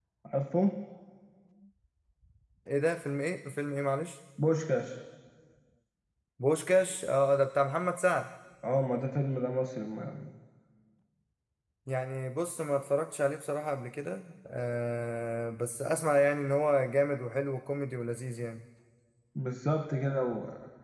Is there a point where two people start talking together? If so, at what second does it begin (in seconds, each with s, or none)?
none